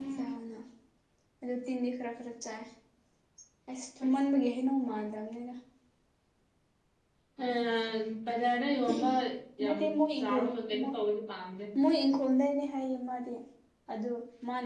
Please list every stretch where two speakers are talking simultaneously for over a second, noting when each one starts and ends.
none

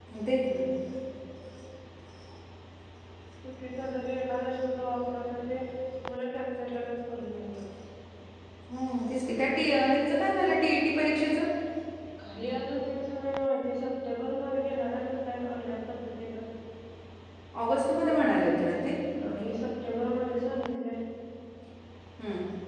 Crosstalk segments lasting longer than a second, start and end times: none

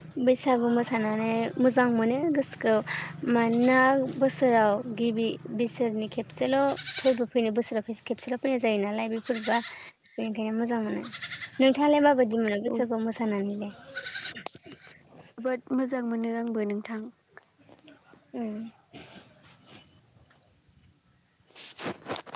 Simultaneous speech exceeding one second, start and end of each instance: none

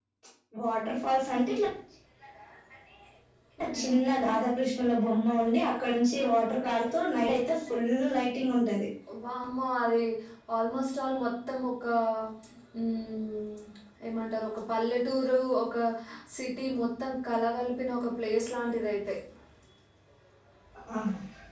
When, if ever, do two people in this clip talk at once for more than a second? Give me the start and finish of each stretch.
none

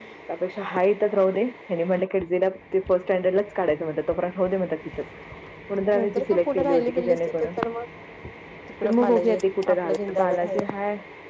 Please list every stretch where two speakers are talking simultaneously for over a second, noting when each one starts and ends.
5.9-7.5, 8.8-10.6

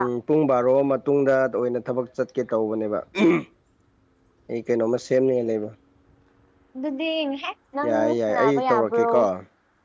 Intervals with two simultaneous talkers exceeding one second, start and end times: 7.9-9.1

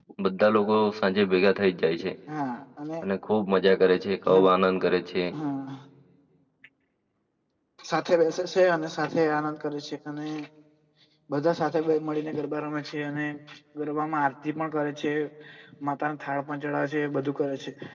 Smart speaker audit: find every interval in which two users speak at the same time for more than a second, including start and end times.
none

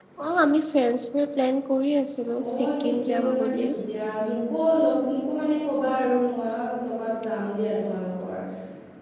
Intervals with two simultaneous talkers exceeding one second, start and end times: 2.5-3.7

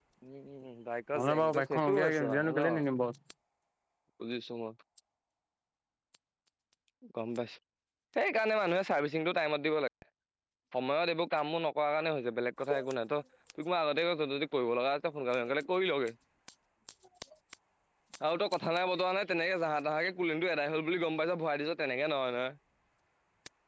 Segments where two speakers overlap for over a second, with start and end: 1.2-2.7

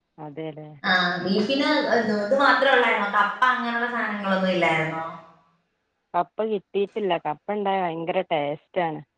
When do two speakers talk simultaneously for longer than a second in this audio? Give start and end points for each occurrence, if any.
none

